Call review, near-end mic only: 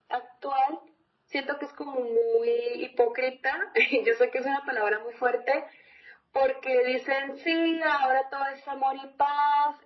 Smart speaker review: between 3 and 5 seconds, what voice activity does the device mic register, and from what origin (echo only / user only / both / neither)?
echo only